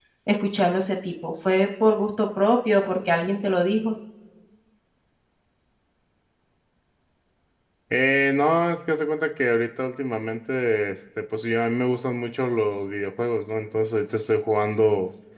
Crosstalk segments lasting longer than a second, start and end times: none

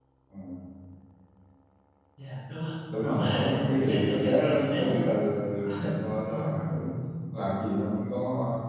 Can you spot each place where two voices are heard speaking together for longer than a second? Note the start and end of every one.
3.0-4.8

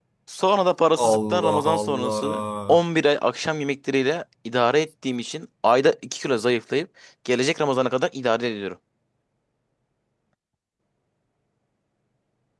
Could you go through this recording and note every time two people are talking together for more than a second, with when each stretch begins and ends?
1.0-2.8

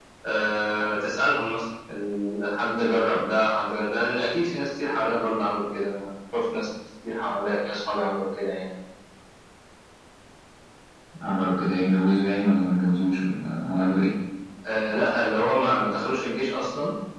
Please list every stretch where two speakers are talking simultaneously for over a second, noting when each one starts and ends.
none

